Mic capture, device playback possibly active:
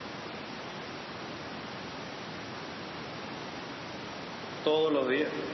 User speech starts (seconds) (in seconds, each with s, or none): 4.6 s